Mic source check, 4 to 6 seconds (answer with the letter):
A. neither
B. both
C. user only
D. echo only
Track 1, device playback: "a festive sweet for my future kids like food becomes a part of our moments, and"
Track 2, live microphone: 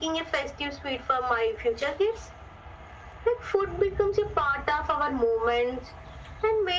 D